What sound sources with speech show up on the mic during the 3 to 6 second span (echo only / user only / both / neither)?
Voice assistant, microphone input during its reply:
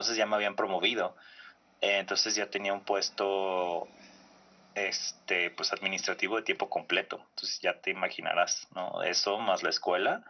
echo only